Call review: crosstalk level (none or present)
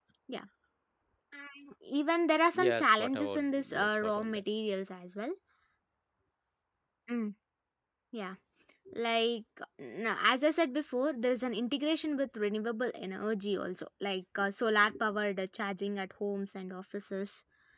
present